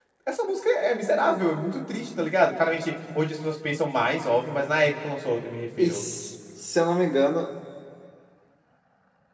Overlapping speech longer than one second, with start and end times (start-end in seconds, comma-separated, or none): none